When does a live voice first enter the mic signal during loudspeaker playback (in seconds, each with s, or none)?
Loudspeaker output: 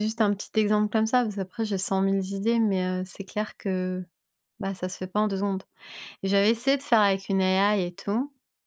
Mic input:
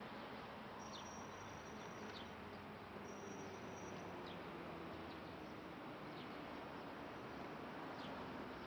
none